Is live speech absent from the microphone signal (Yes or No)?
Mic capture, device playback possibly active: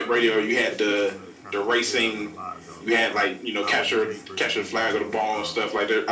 No